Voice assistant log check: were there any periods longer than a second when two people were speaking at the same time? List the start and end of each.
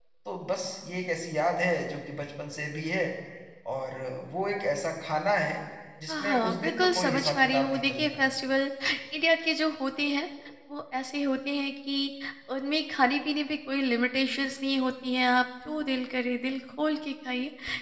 6.1-8.3

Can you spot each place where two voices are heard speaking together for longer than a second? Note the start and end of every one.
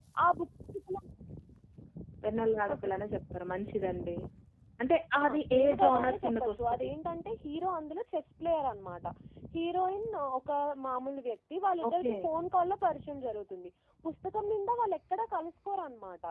5.2-6.9

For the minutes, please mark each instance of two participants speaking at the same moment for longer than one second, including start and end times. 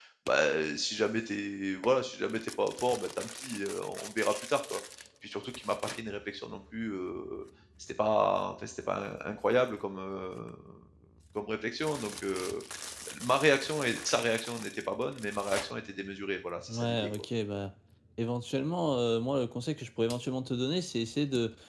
none

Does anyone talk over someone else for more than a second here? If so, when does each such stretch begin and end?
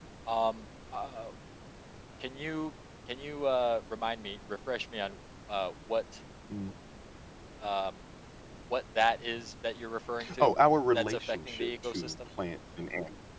10.9-12.1

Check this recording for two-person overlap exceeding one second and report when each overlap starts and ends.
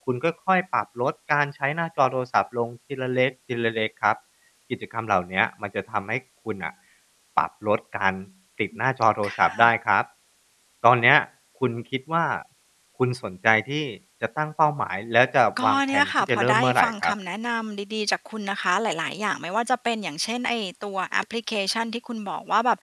15.6-17.1

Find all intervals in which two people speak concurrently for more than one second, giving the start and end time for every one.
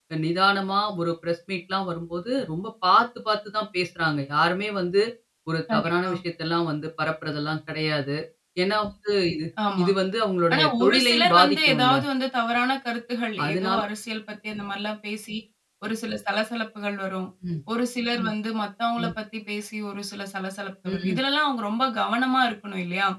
10.5-11.9

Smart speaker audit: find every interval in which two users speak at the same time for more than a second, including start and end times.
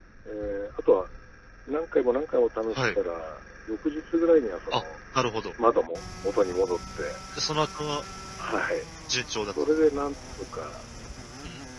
none

